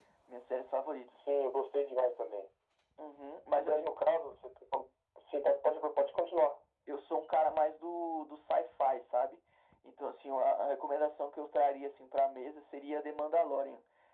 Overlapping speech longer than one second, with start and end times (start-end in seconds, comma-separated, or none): none